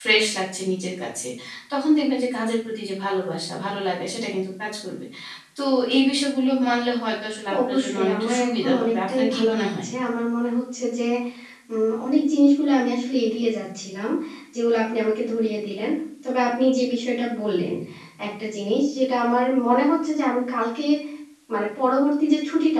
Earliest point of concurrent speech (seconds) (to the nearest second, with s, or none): 8 s